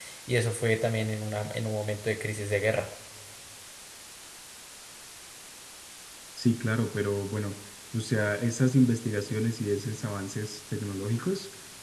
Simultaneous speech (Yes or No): No